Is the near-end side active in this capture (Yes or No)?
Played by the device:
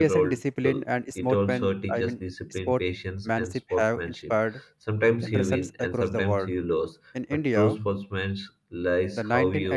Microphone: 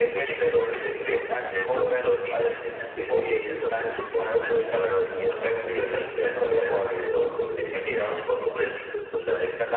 Yes